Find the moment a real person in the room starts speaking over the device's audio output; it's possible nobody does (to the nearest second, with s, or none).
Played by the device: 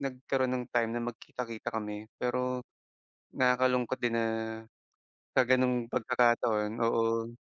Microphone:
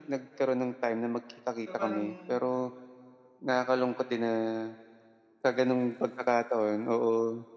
2 s